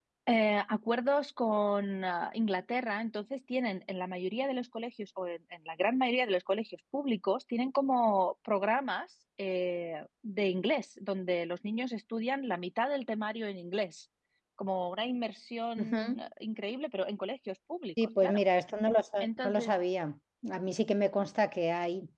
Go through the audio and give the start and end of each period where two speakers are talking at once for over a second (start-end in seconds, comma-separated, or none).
none